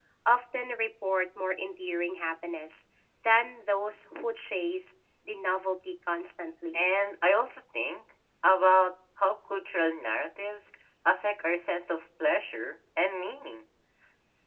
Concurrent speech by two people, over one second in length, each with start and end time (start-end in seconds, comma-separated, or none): none